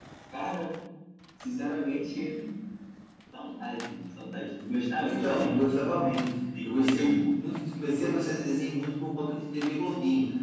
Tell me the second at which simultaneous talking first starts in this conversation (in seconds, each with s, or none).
5.0 s